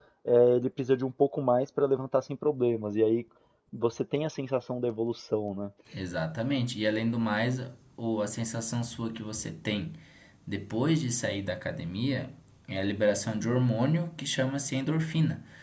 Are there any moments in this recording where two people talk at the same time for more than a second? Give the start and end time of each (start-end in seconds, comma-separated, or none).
none